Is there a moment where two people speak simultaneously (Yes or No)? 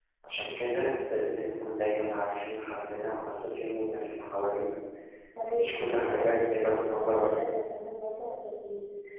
Yes